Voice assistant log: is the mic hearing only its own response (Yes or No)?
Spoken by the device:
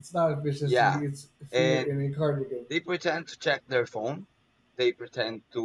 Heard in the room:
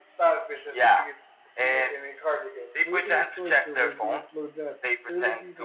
No